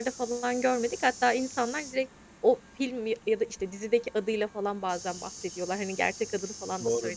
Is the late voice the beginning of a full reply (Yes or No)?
Yes